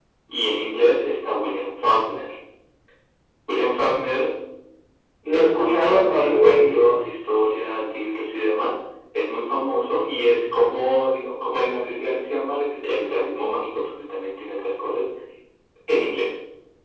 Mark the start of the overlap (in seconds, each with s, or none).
5.3 s